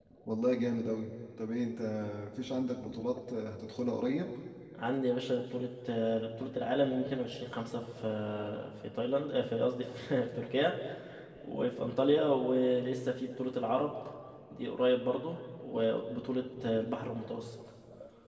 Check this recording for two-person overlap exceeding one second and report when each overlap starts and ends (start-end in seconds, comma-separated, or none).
none